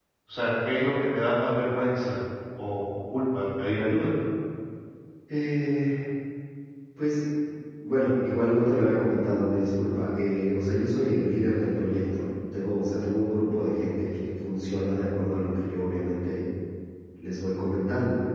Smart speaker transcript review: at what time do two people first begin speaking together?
none

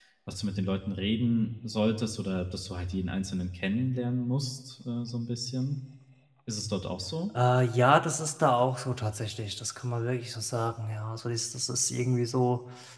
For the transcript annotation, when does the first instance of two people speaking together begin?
none

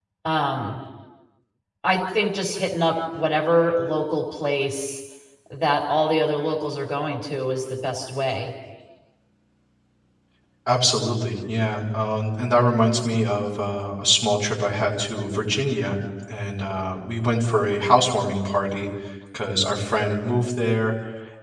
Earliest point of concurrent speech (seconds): none

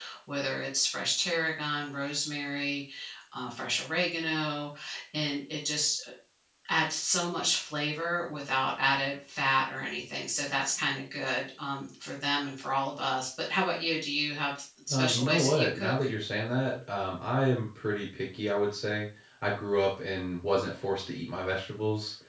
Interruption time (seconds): 14.9 s

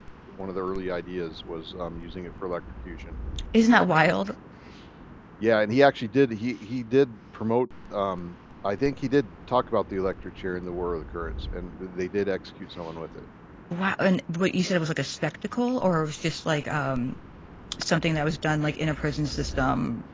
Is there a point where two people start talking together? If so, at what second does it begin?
none

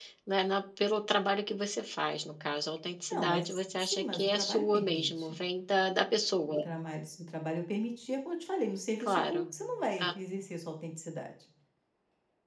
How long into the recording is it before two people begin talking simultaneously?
3.1 s

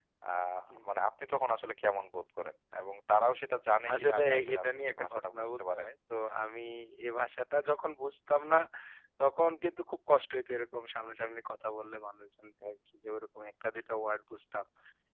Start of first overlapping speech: 3.9 s

